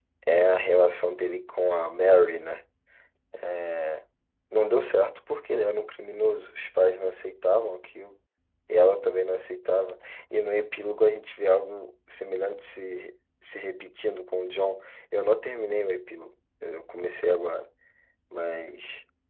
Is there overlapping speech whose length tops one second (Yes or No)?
No